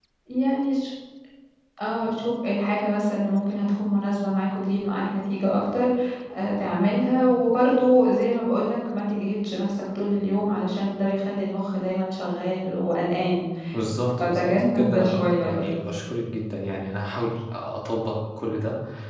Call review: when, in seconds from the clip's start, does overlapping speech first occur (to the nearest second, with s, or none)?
14 s